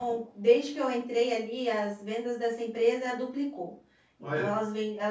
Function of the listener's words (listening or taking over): listening